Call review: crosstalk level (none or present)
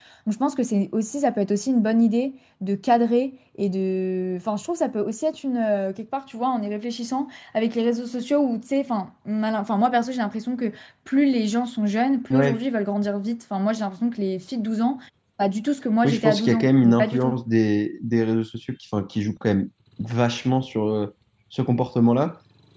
present